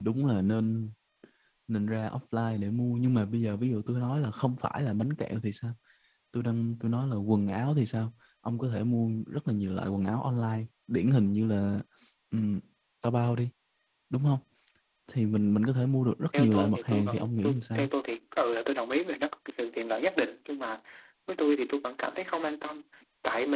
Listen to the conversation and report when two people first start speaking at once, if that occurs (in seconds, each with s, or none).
16.3 s